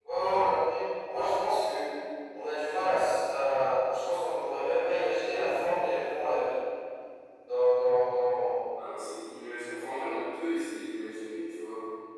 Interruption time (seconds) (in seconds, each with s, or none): none